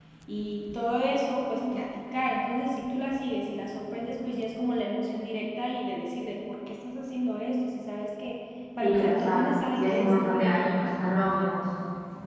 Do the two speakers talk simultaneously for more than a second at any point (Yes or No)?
Yes